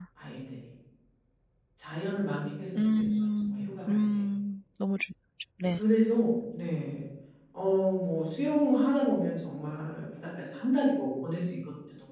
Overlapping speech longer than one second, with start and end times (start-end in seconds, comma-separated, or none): 2.8-4.2